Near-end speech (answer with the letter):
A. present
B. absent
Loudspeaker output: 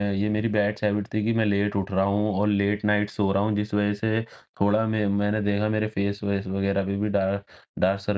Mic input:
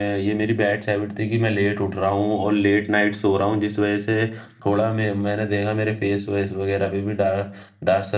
B